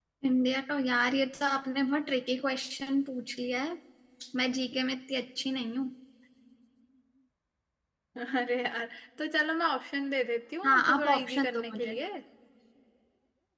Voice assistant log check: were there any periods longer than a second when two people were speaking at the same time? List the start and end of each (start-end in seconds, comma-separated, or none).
10.6-12.0